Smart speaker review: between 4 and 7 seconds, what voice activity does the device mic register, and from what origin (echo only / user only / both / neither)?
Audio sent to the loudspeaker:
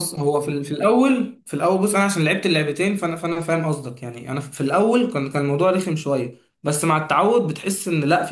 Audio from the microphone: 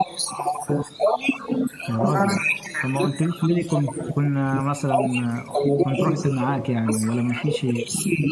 both